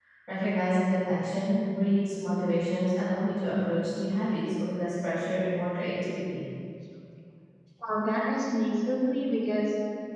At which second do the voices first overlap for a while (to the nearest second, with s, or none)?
none